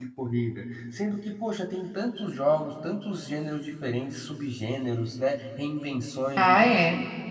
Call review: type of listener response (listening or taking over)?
listening